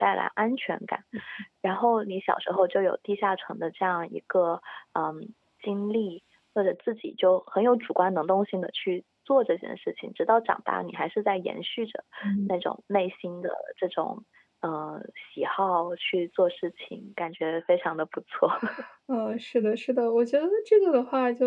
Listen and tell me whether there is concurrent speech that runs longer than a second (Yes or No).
No